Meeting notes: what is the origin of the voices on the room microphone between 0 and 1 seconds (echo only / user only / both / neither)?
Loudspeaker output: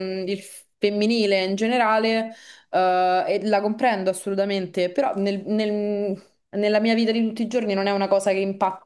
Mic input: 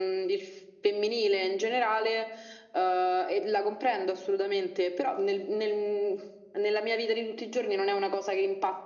echo only